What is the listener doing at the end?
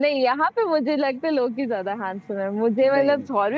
listening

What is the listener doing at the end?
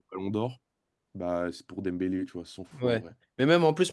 taking over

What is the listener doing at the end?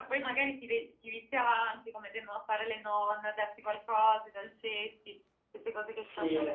taking over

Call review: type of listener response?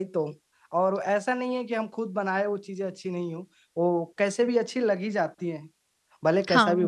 taking over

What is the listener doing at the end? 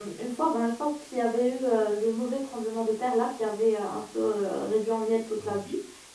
listening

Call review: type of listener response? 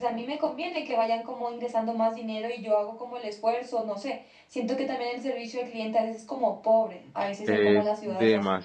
taking over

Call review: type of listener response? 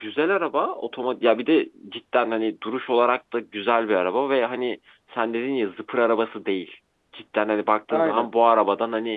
listening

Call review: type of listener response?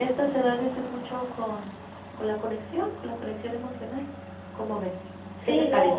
taking over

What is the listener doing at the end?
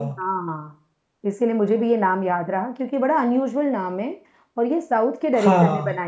listening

